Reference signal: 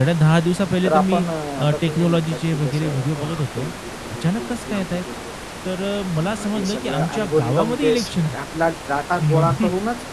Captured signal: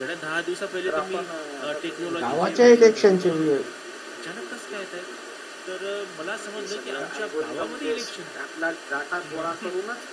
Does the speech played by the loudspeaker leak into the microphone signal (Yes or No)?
Yes